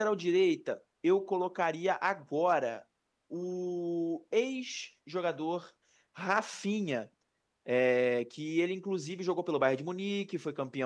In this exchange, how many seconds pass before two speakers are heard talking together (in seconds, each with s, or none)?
none